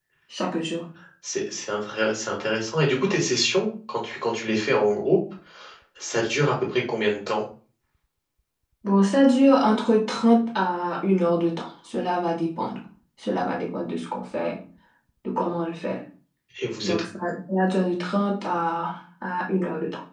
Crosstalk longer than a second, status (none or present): none